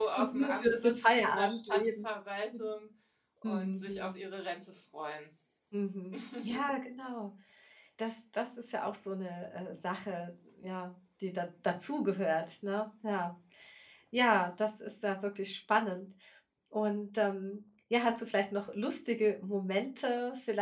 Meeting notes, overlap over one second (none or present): present